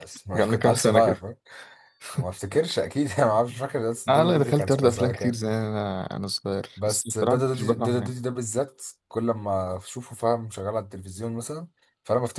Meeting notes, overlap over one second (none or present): present